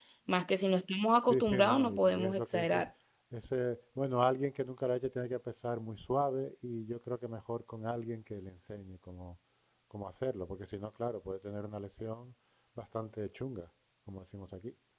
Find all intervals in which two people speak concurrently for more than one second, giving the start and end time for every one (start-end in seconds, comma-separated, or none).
1.3-2.9